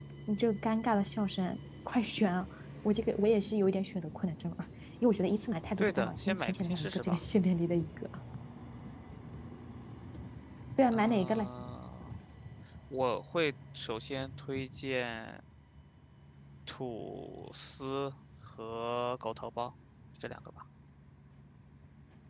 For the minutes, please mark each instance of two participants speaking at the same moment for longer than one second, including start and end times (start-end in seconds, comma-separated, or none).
5.8-7.2